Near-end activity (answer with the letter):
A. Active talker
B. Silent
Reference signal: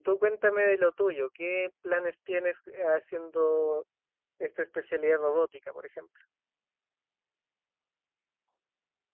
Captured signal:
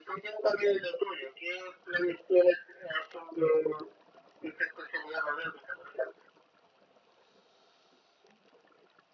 B